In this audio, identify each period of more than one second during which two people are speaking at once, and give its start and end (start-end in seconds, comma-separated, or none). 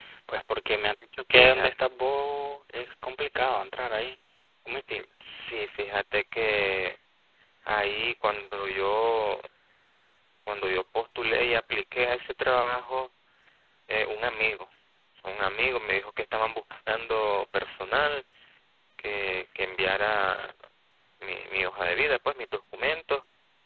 none